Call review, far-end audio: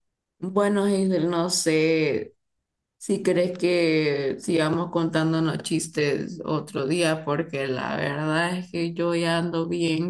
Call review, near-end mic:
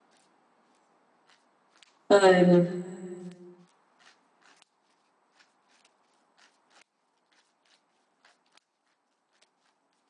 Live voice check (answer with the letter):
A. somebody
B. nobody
A